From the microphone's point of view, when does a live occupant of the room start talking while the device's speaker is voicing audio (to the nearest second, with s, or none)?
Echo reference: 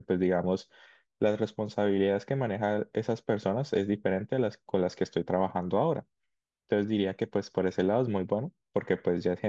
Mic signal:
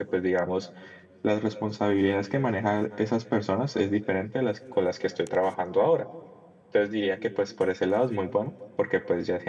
none